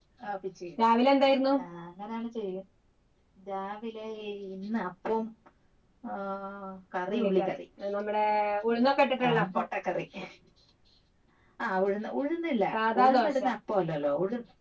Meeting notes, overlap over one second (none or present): none